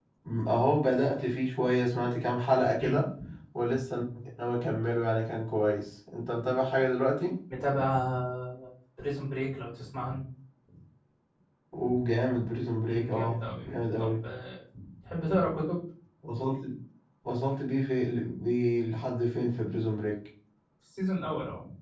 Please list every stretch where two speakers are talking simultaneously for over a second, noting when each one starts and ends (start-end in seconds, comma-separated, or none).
12.9-14.2